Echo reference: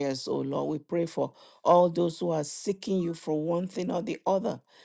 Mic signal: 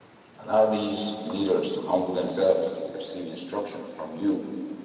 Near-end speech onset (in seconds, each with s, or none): 0.4 s